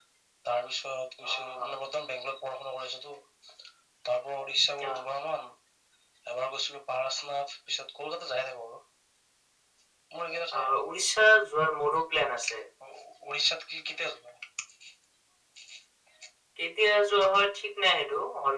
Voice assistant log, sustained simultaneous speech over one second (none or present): none